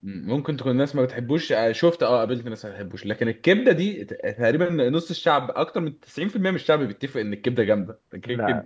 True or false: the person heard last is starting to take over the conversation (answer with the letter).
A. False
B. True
A